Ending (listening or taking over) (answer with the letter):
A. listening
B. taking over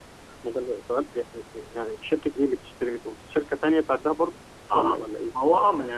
B